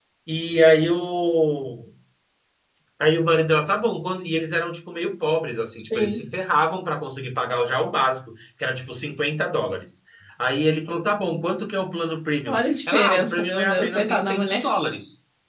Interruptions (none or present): present